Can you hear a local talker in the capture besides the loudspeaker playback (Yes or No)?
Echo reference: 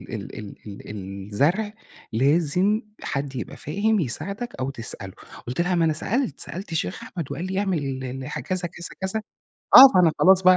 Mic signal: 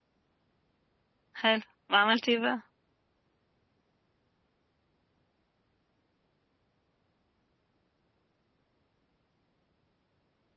Yes